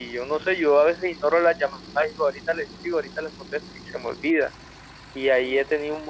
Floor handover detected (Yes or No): No